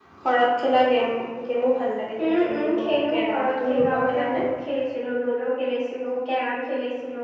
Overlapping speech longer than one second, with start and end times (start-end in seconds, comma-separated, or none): 2.2-4.5